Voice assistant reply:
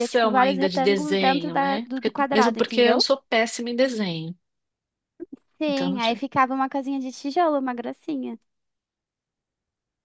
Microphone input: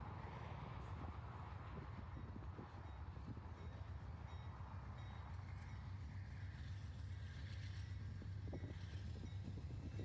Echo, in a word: none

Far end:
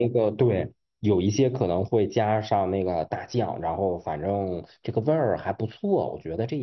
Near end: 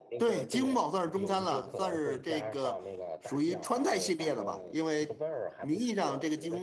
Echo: present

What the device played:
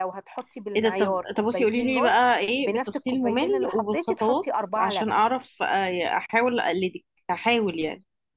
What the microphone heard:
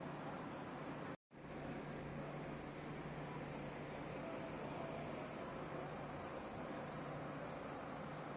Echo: none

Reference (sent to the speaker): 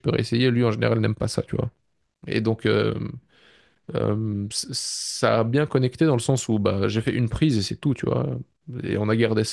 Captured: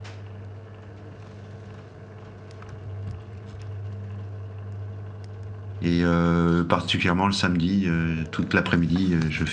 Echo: none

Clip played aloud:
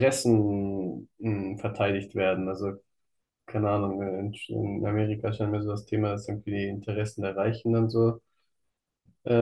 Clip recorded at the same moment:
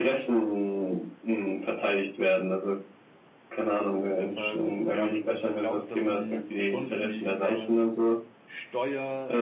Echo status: present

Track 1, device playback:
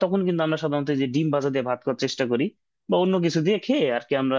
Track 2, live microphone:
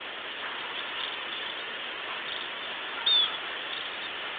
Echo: none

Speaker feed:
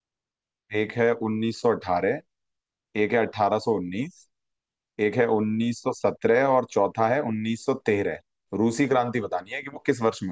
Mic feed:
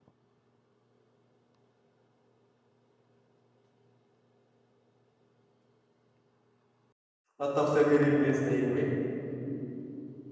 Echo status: none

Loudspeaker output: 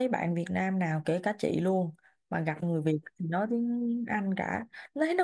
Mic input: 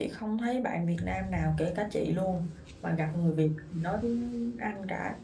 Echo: present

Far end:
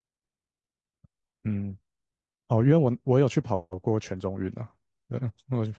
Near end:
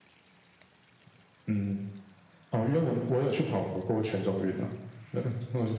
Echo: present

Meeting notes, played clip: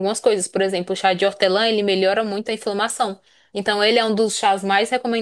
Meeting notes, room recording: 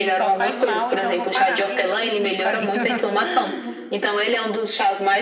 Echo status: present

